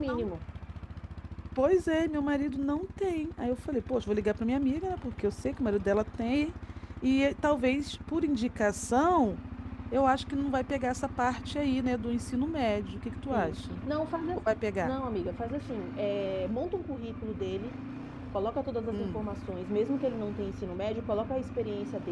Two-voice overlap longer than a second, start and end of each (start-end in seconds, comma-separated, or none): none